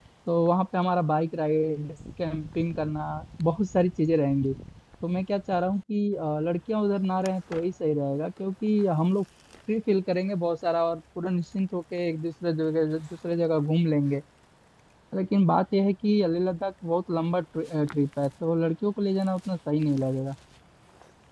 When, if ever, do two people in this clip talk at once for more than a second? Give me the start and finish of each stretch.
none

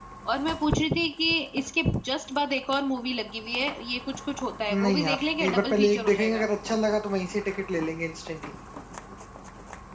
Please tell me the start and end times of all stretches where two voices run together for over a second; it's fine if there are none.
4.7-6.5

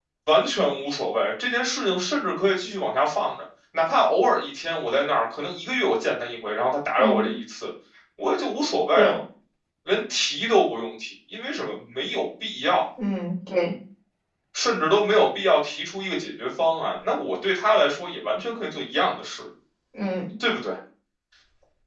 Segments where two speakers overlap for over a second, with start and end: none

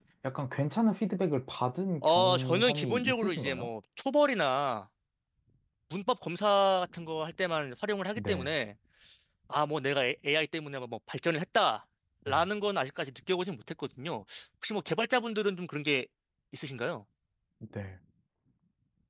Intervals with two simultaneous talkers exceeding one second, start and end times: 2.0-3.7

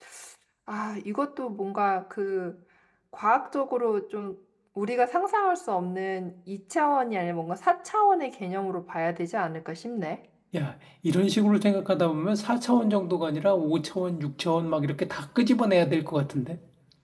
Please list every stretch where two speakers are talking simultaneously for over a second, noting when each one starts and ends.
none

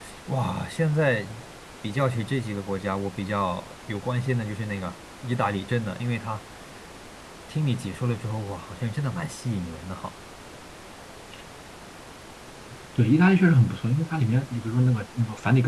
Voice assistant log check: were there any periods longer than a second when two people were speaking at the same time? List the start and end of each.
none

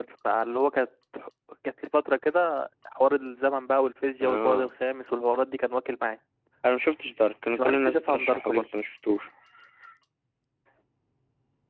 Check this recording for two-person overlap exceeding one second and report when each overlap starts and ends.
7.5-8.7

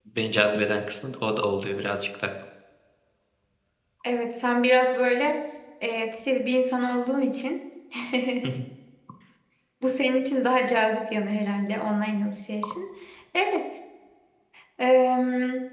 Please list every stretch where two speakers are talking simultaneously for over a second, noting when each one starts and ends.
none

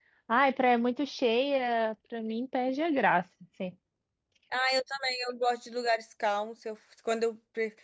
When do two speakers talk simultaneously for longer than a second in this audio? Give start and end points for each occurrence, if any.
none

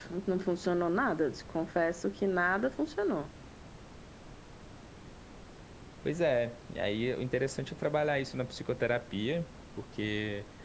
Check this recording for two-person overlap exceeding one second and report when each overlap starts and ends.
none

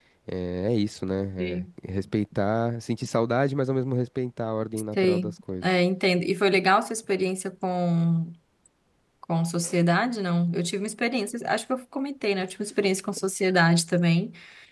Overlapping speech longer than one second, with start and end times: none

